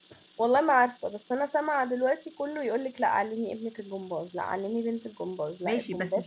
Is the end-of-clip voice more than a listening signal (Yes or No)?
Yes